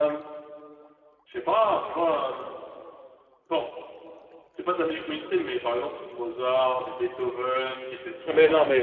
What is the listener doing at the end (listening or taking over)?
taking over